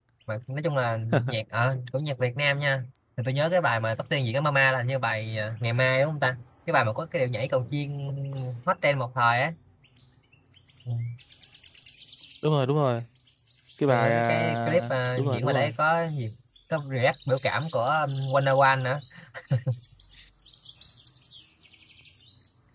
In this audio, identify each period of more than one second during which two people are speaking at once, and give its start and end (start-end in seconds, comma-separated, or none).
13.9-15.7